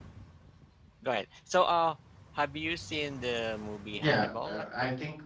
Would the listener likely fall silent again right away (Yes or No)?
No